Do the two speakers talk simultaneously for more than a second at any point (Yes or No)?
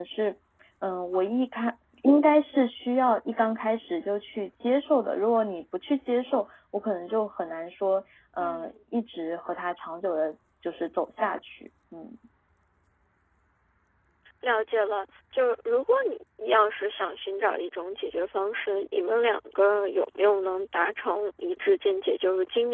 No